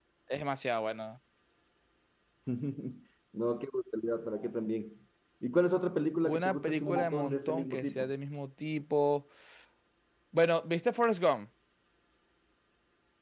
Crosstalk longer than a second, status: present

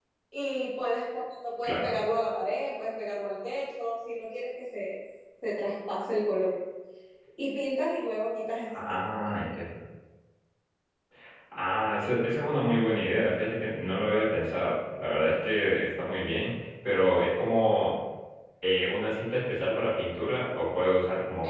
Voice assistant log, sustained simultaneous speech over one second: none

